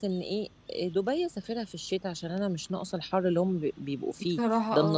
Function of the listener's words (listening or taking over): listening